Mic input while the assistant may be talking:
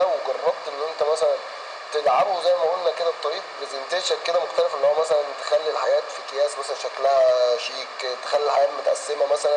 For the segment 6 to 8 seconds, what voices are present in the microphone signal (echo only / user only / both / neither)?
echo only